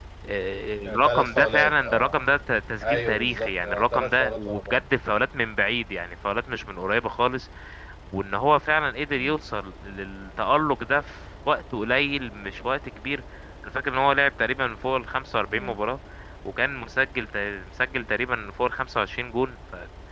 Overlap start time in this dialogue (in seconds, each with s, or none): 0.8 s